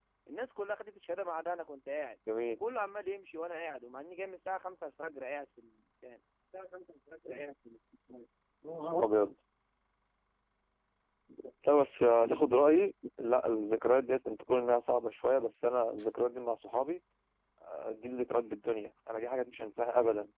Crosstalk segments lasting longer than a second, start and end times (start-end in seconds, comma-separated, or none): none